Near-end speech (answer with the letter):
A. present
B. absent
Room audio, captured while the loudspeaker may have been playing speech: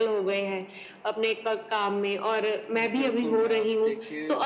A